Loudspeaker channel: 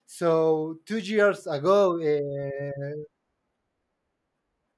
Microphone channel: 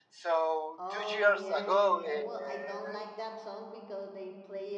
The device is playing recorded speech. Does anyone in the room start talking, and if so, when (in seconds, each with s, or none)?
0.8 s